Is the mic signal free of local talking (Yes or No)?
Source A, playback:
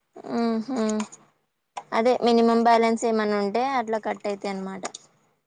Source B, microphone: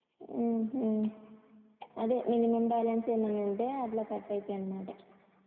Yes